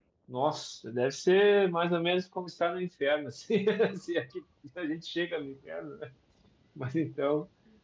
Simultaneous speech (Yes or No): No